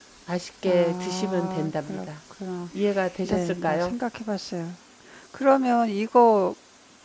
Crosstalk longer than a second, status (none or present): present